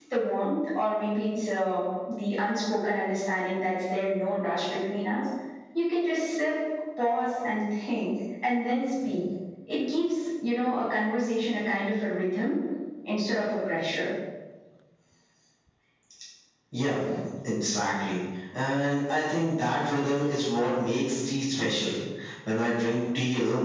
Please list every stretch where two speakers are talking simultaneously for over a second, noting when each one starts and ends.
none

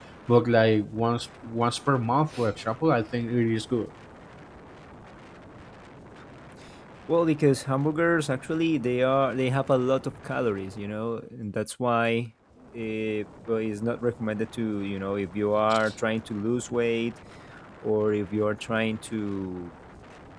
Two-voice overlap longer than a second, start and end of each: none

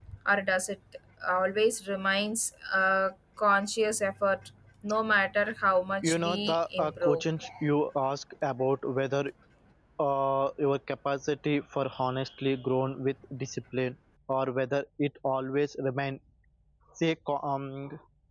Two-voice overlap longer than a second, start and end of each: 6.0-7.2

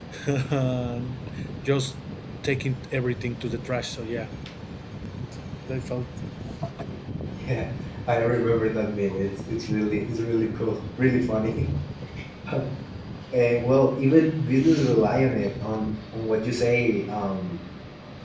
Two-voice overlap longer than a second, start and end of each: none

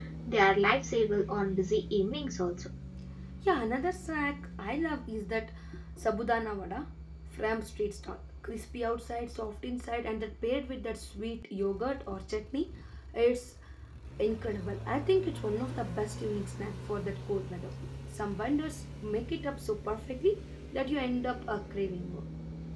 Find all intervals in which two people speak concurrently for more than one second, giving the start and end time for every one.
none

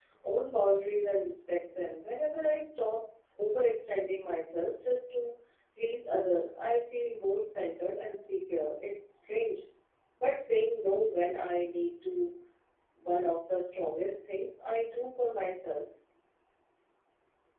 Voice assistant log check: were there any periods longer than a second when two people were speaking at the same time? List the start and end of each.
none

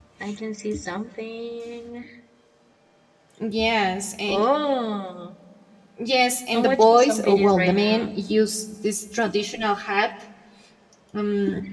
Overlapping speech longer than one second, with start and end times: 6.5-8.1

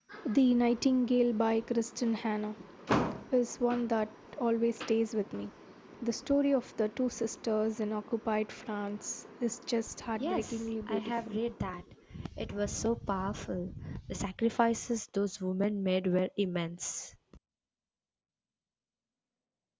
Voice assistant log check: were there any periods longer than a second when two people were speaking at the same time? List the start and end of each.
10.1-11.4

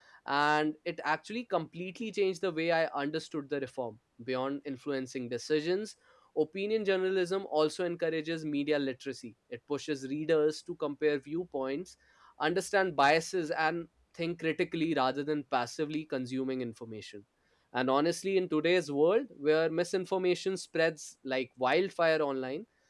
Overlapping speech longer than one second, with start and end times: none

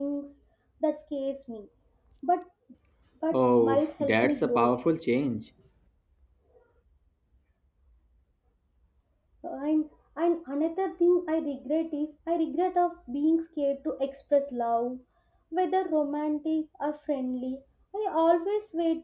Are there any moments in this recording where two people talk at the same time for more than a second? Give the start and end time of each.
3.3-4.7

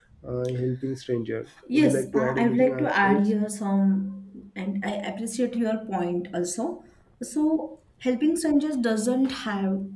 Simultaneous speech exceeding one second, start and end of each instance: 1.7-3.2

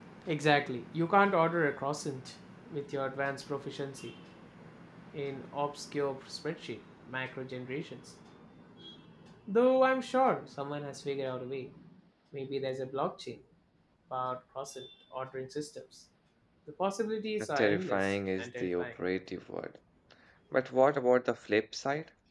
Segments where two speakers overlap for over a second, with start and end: 17.6-18.9

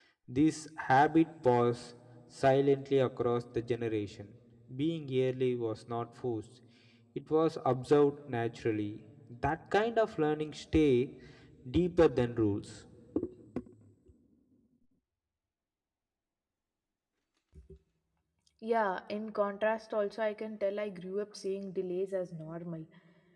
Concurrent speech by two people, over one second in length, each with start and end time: none

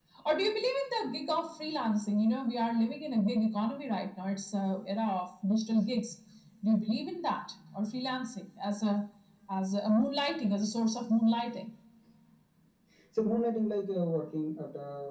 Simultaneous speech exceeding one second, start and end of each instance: none

